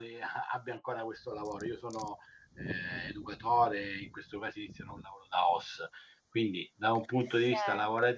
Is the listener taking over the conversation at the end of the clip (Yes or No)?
No